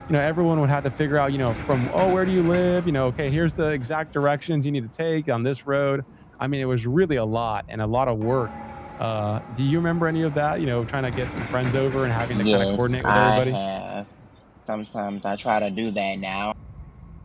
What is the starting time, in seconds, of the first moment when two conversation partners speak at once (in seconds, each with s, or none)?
12.3 s